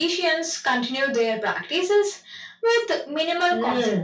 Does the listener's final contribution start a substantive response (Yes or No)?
Yes